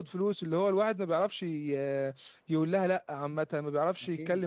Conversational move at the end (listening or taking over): listening